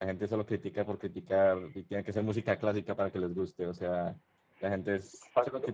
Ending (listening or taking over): listening